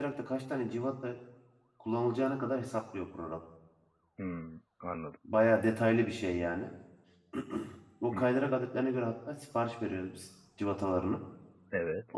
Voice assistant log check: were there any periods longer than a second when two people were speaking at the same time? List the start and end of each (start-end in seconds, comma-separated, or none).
none